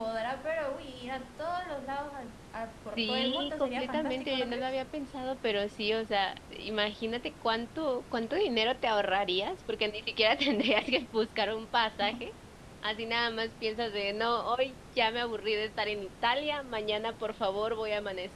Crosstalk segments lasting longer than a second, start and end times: 3.0-4.7

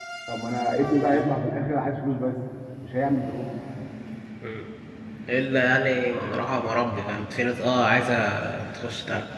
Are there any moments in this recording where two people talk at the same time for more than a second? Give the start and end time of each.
none

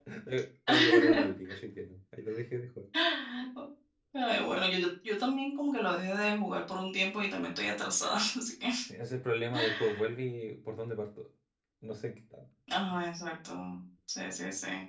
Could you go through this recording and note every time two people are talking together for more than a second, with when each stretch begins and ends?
none

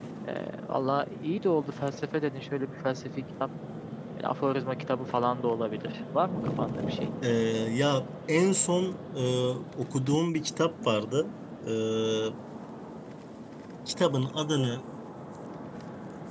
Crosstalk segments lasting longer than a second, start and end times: none

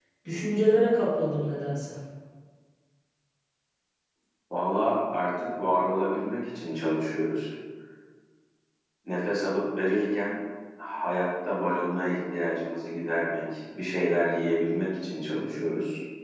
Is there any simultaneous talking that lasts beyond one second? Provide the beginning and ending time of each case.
none

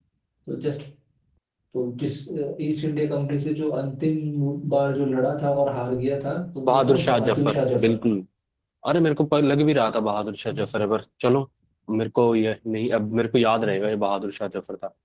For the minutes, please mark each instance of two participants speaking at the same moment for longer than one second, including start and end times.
6.7-7.9

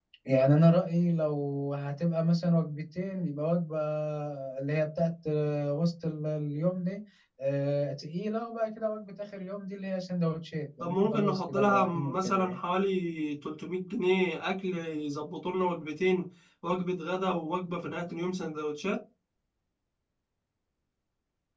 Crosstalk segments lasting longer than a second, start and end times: 10.8-12.6

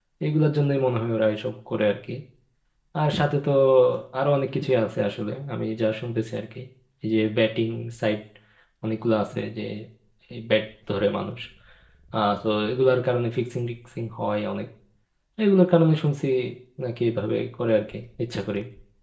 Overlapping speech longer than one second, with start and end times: none

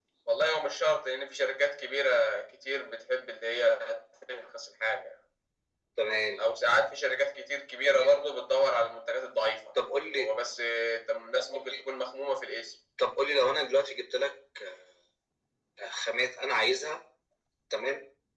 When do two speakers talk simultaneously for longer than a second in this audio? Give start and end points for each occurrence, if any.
none

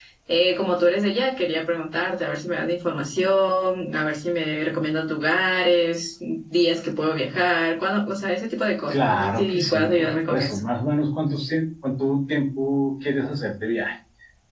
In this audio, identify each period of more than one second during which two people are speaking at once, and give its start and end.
8.9-10.6

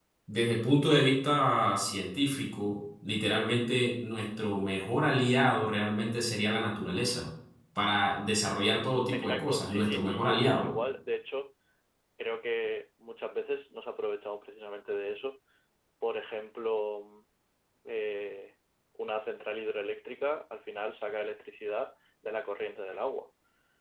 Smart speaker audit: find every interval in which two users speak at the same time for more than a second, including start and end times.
9.1-10.7

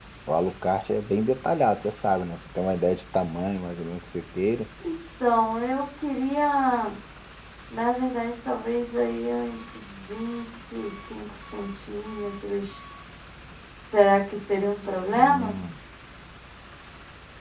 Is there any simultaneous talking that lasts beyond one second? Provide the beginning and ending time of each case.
none

